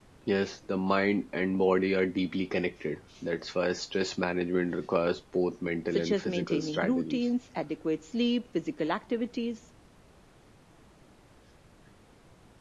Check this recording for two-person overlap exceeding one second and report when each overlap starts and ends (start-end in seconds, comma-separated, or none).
5.9-7.2